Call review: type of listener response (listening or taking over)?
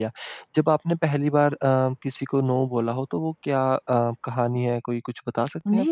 taking over